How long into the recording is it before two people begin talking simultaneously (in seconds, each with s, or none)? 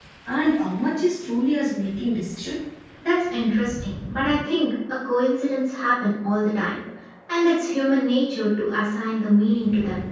none